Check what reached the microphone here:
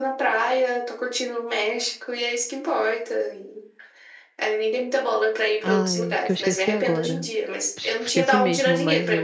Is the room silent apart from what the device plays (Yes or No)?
No